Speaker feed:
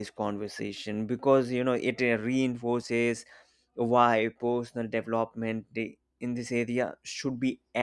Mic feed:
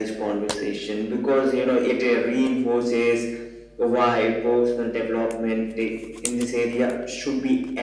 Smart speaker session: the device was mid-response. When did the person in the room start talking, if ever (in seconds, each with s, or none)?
none